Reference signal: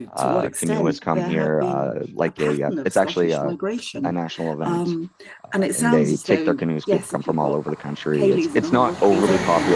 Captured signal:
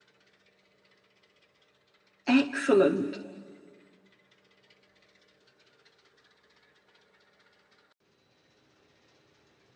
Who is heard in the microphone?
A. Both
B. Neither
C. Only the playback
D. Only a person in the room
D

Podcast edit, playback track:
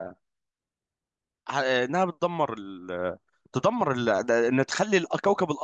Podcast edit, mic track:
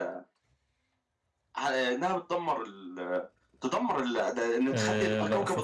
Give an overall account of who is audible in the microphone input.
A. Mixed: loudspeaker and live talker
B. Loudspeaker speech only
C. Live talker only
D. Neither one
A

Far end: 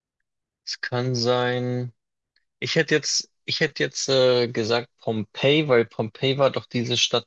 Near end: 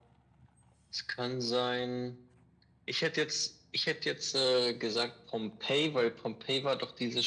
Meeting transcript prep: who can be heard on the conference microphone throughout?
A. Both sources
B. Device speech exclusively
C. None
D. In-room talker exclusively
B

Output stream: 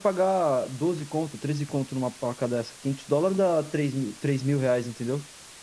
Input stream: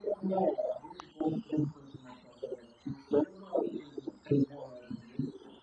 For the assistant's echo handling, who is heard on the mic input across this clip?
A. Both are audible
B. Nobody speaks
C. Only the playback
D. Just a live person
C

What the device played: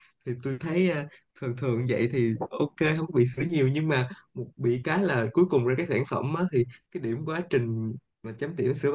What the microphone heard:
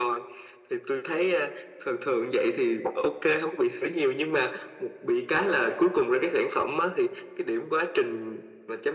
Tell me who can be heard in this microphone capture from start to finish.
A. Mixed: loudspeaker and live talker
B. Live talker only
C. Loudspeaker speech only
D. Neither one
C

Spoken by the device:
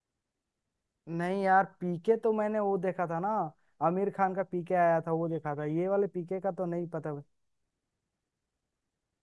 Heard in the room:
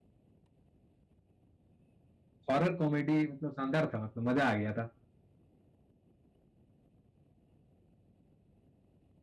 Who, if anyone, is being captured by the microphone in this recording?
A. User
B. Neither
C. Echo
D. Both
A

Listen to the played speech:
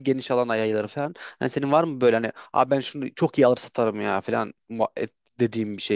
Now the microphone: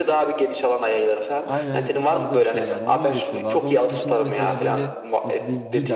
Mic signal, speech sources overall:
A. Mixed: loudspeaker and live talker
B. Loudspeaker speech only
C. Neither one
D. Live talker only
A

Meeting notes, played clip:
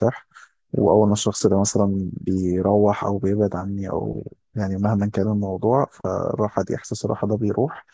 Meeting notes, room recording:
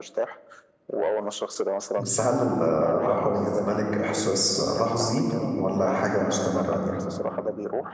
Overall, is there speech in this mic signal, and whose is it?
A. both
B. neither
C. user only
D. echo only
A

